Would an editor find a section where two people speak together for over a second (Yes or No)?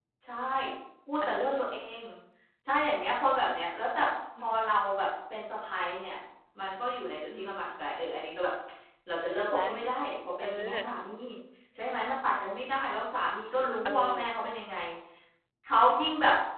No